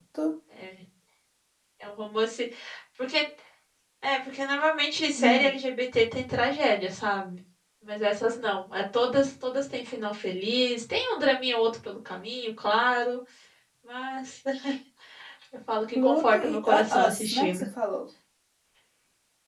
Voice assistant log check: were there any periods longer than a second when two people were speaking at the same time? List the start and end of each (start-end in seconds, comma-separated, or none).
16.0-17.6